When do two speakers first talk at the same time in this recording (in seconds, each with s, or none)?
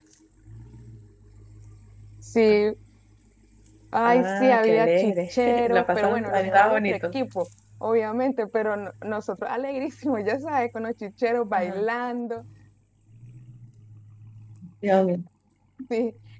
4.0 s